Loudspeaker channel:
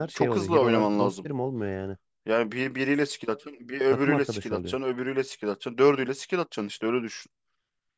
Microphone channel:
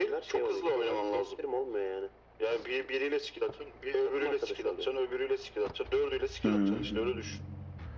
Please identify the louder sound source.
user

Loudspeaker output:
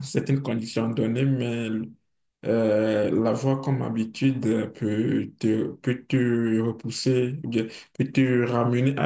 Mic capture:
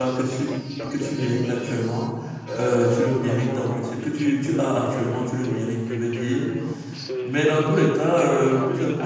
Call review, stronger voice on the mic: user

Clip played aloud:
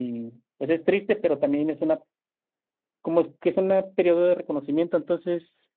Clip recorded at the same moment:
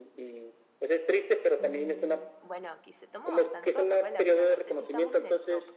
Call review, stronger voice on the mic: echo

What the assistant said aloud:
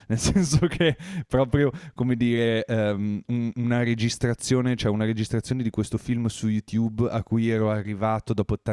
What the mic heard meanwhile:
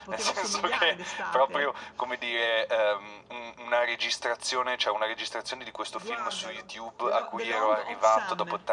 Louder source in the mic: echo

